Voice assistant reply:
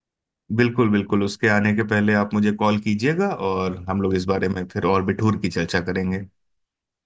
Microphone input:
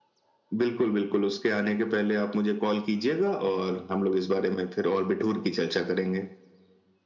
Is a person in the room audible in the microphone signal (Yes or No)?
Yes